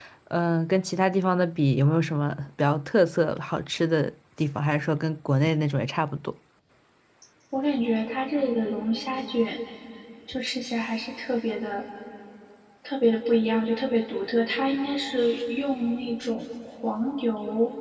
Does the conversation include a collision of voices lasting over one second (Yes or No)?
No